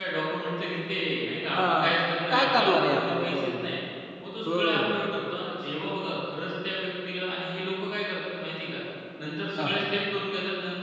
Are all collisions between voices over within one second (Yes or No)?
No